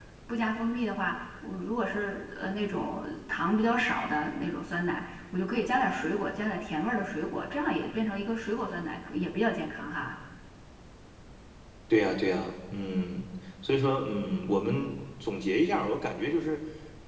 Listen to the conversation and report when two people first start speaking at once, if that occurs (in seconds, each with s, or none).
none